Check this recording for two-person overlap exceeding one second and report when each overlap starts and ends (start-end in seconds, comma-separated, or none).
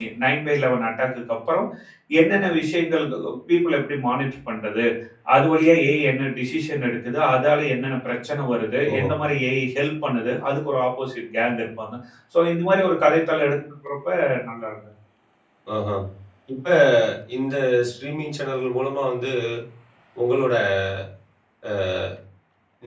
none